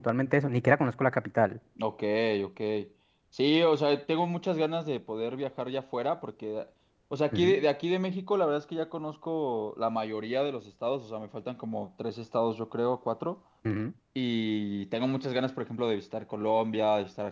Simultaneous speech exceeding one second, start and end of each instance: none

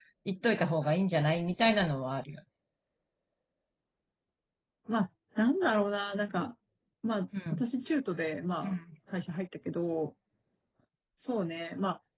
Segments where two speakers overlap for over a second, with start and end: none

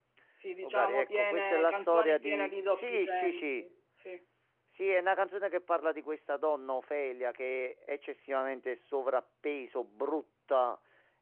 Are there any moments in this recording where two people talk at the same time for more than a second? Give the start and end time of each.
0.6-3.7

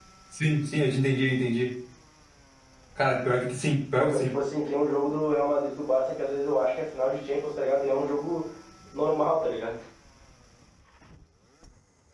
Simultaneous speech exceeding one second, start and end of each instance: none

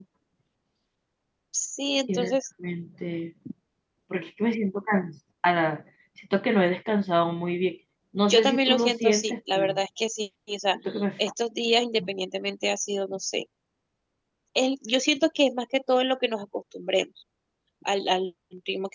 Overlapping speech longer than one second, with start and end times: 8.3-9.8

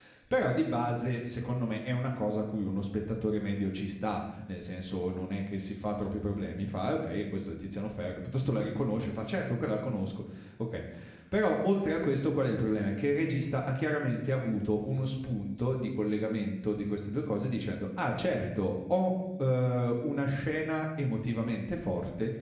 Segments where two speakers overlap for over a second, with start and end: none

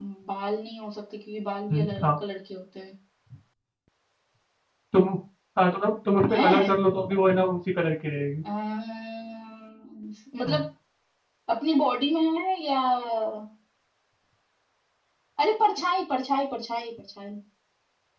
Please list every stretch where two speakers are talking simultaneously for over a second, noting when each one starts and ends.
none

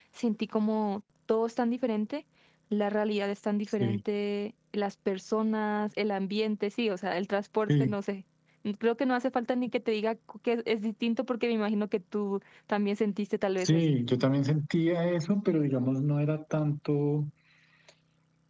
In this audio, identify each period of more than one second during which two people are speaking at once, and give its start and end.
none

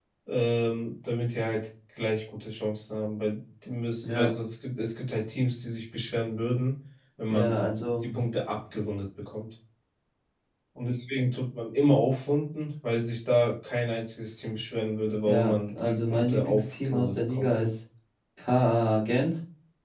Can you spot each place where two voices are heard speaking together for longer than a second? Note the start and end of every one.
15.2-17.5

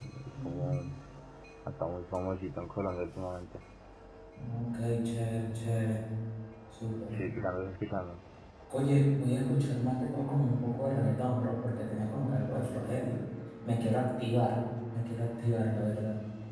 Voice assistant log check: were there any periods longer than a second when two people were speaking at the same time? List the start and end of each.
none

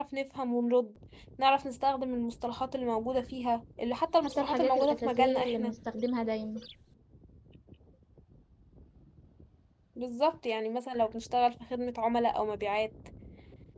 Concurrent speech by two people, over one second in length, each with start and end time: 4.2-5.7

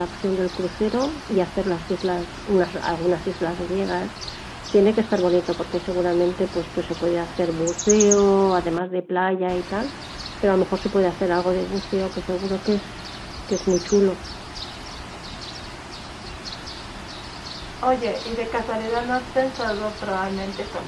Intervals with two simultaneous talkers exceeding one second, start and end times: none

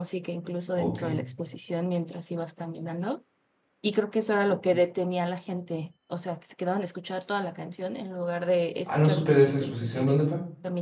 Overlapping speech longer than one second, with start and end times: 8.9-10.2

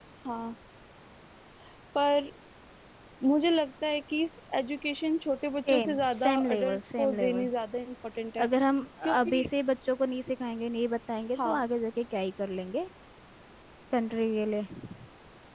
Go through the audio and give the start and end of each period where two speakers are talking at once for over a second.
5.7-7.5

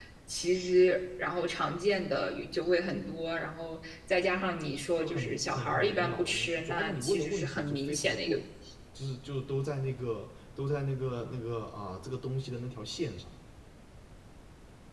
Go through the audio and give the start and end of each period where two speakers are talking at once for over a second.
5.0-8.4

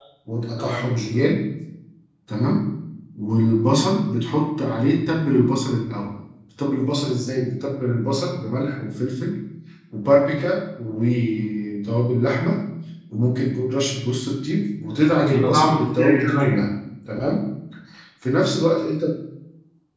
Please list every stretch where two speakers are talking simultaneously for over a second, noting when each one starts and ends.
15.1-16.6

